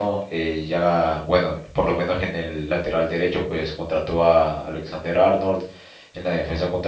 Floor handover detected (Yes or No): No